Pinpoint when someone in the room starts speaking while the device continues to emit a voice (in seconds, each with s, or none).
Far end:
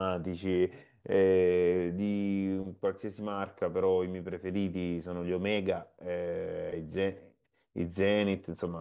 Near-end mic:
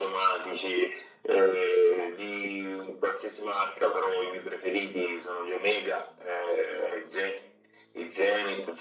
none